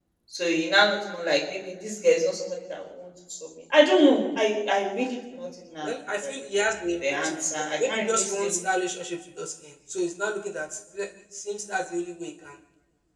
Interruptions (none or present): present